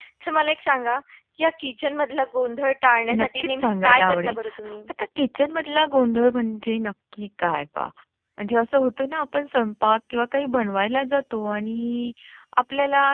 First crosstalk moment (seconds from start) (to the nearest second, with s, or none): 3 s